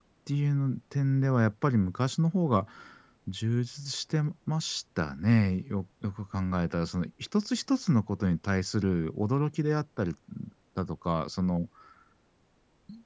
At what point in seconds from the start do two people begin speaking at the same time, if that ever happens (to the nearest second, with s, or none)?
none